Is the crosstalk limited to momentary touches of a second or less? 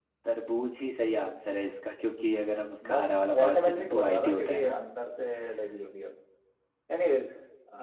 No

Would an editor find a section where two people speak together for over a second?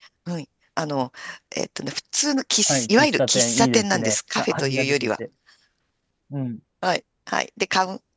Yes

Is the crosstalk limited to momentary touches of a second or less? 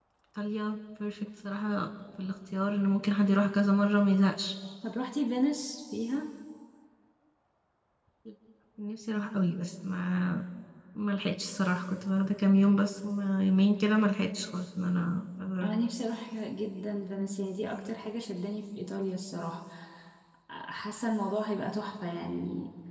Yes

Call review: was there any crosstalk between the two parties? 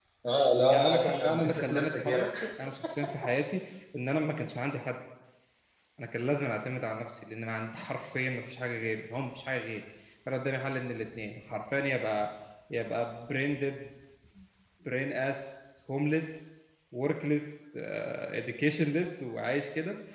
Yes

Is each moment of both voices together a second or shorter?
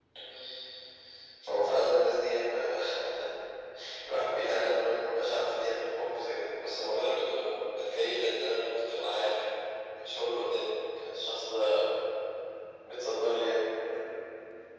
Yes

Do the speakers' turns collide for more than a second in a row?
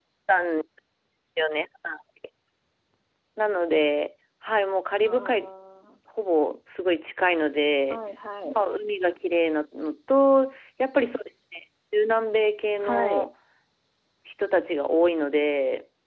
No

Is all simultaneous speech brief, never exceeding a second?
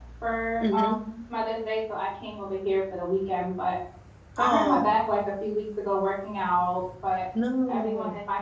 Yes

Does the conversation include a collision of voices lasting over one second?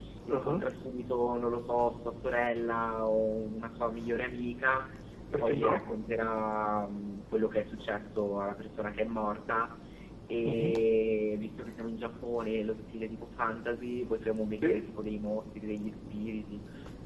No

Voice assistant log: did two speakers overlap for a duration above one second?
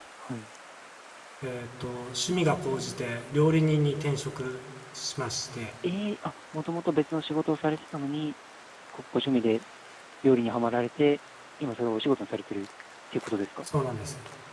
No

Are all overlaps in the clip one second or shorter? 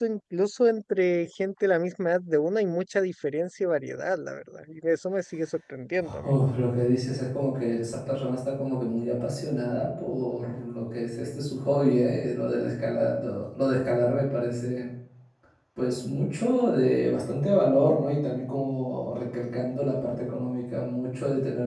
Yes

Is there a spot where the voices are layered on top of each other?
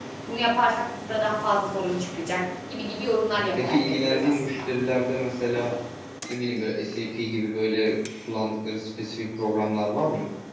Yes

